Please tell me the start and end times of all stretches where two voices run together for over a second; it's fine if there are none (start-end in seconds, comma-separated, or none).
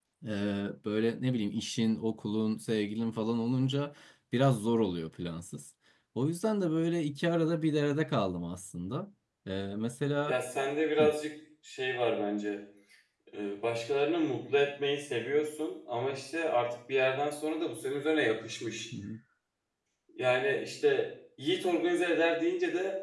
none